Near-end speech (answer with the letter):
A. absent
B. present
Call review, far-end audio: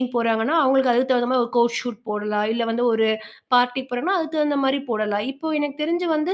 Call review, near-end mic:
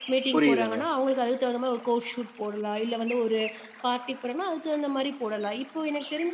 B